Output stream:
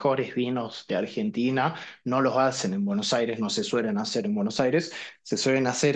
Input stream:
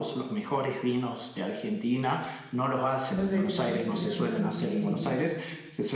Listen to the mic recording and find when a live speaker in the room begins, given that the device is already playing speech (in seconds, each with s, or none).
3.1 s